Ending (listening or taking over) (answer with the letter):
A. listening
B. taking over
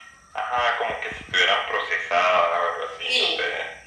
B